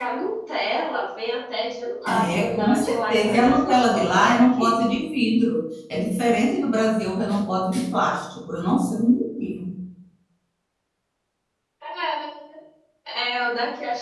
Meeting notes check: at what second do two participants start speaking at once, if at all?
2.1 s

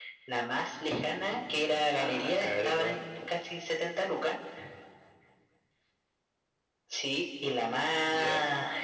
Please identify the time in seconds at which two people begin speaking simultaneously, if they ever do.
2.0 s

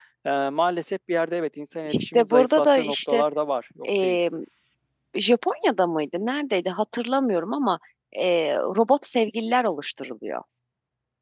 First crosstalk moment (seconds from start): 1.9 s

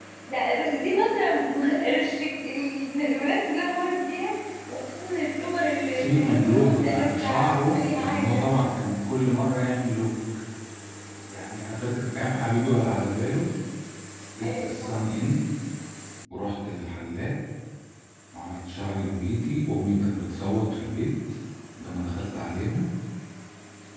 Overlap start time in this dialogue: 5.9 s

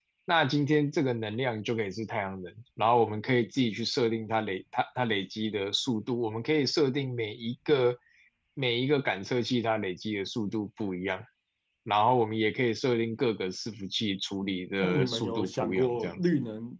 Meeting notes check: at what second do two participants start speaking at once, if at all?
14.8 s

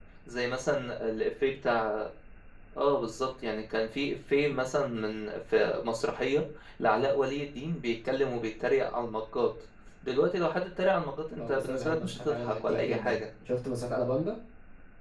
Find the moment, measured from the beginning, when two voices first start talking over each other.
11.4 s

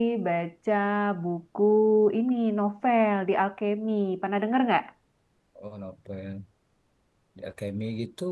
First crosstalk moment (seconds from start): none

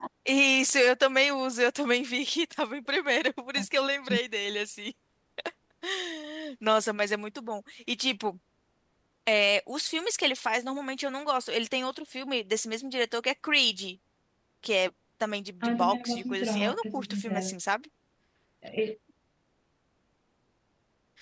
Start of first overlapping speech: 15.6 s

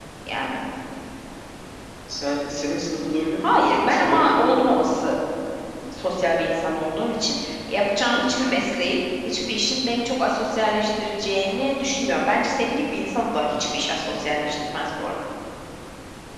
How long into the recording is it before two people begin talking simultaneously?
3.4 s

